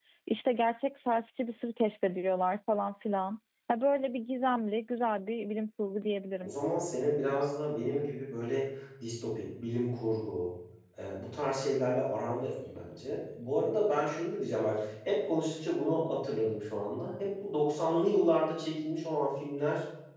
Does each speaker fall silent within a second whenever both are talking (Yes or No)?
Yes